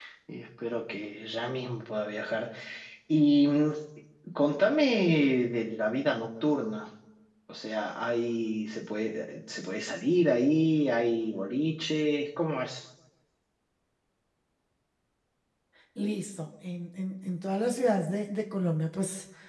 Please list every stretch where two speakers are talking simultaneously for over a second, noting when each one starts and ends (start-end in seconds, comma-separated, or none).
none